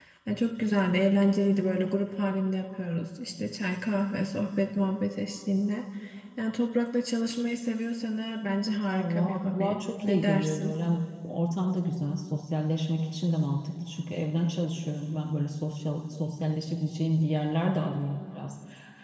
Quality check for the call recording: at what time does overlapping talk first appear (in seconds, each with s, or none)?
8.9 s